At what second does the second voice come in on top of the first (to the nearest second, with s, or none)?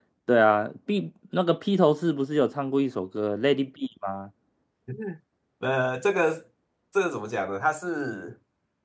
none